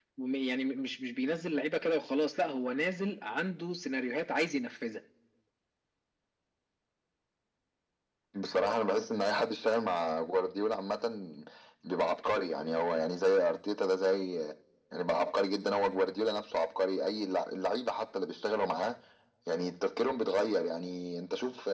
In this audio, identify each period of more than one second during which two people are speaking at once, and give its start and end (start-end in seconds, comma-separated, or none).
none